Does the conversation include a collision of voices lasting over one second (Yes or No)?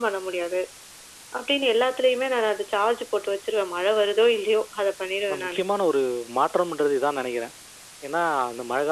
No